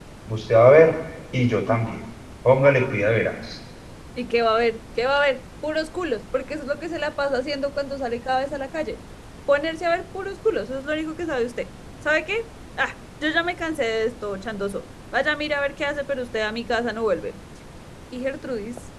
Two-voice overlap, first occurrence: none

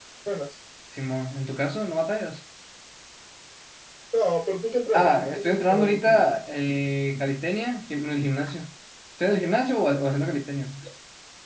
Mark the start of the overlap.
4.9 s

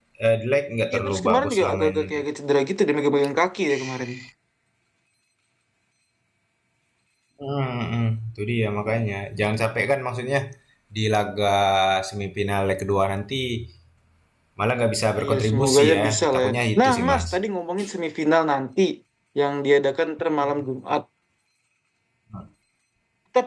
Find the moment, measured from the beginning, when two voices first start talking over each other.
0.9 s

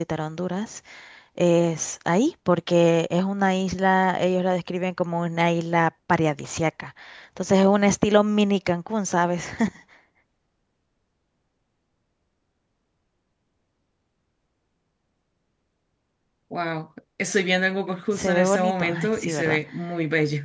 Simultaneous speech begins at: 18.1 s

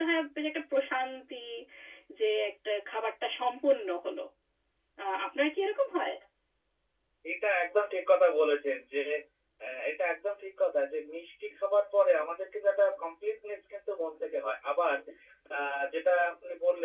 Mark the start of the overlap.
none

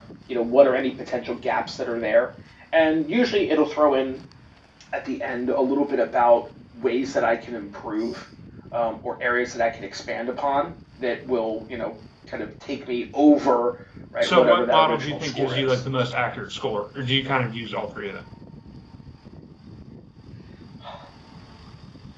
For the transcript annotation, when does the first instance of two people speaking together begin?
14.2 s

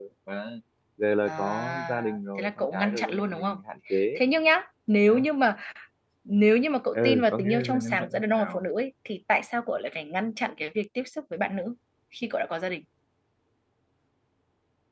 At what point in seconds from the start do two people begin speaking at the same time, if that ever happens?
1.3 s

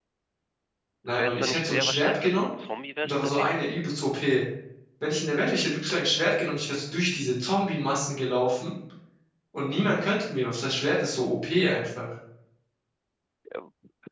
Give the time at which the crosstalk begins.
1.1 s

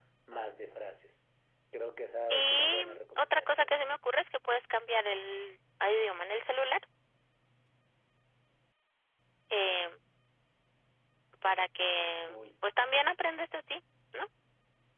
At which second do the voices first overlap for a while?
2.3 s

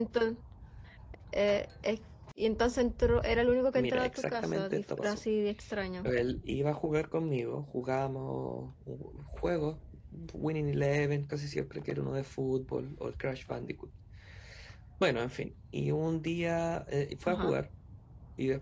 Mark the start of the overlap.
3.8 s

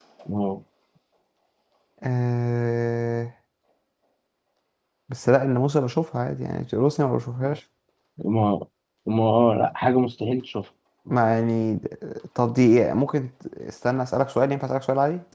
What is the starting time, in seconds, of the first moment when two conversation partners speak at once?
none

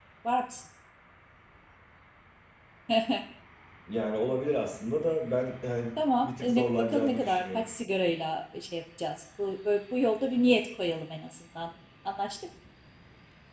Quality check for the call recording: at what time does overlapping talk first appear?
6.2 s

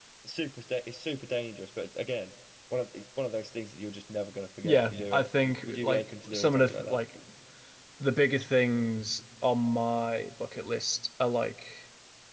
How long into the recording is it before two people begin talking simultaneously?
4.6 s

